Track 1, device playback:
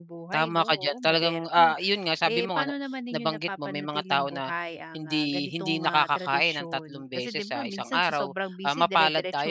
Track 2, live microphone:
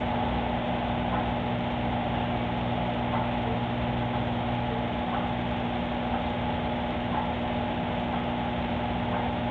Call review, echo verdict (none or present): none